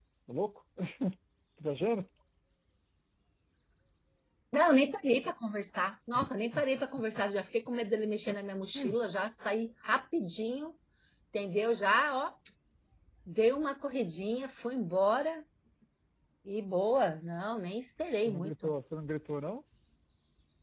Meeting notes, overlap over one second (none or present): none